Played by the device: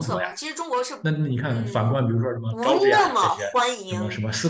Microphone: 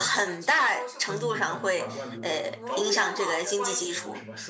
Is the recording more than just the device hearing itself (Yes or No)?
Yes